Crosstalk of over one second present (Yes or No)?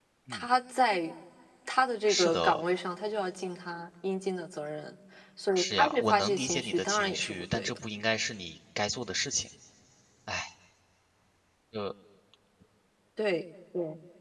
Yes